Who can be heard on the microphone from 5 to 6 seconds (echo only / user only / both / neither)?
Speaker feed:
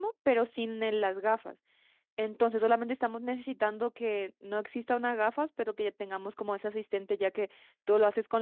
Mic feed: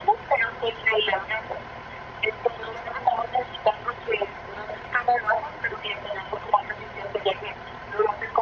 echo only